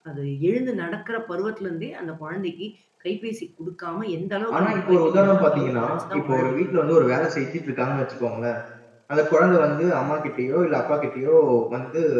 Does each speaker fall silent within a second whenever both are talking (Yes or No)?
No